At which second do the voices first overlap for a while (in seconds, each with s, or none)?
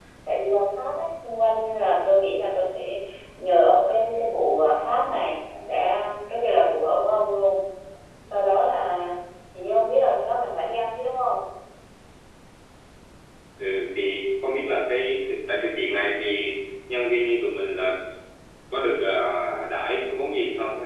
none